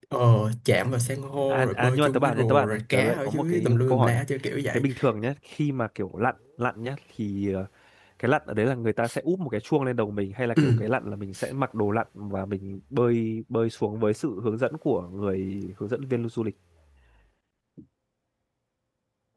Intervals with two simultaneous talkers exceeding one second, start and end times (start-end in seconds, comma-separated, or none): 1.5-4.2